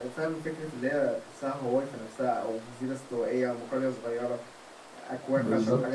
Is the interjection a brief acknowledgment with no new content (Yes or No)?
Yes